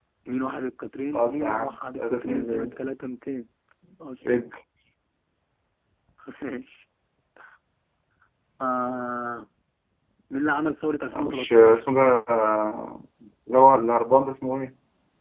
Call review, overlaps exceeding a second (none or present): present